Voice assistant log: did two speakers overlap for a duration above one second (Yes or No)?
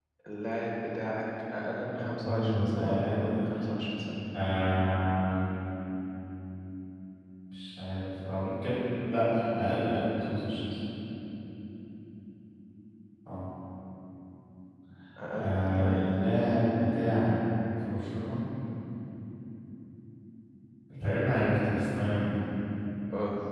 Yes